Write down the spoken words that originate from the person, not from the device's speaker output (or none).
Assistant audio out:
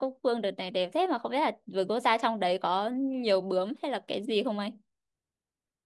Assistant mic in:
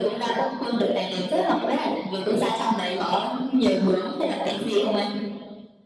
none